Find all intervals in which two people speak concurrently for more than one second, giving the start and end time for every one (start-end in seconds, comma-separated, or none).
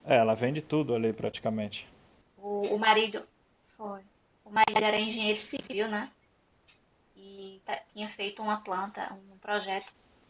none